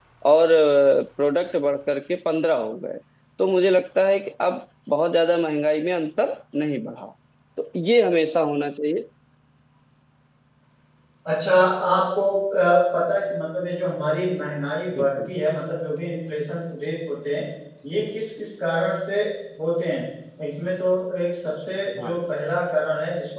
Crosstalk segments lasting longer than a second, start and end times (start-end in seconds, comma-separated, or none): none